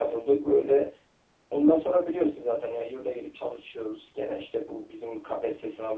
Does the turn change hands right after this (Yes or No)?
No